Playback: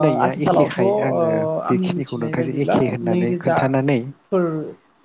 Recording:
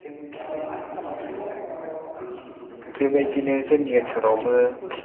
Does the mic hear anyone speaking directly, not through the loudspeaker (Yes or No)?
Yes